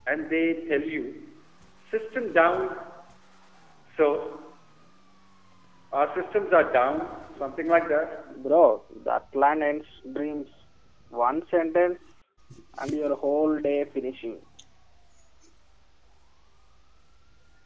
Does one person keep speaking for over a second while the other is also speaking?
No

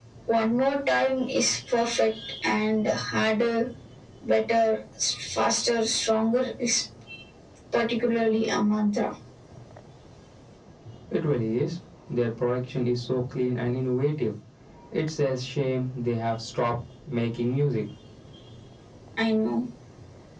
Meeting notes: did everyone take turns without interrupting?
Yes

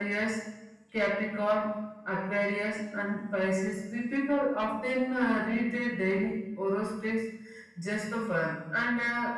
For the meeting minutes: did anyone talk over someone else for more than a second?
No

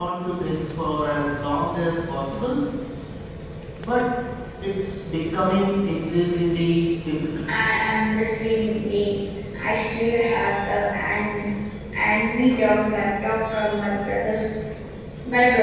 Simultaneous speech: No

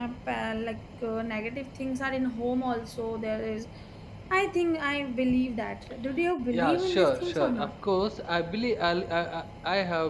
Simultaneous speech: Yes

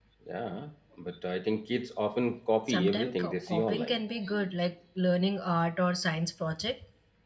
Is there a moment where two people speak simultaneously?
Yes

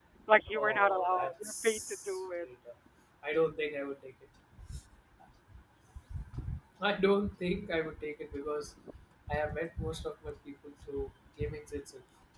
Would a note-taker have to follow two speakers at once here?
Yes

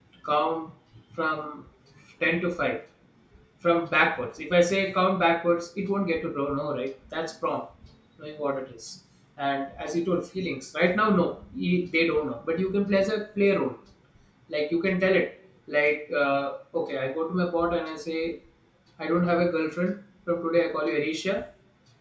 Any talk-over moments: No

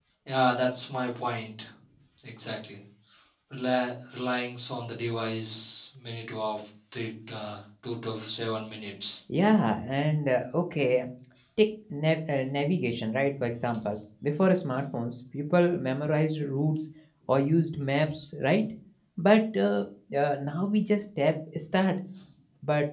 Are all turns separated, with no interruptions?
Yes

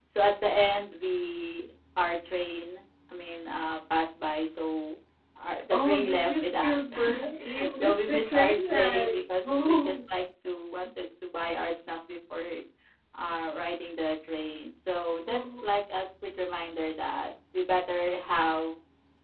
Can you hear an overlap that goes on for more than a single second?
Yes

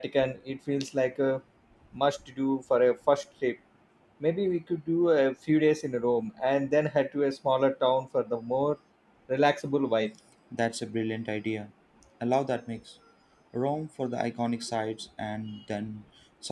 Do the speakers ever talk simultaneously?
No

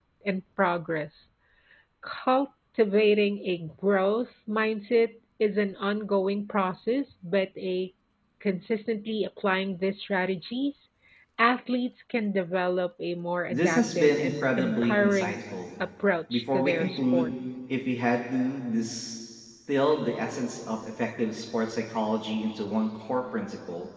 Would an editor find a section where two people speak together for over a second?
Yes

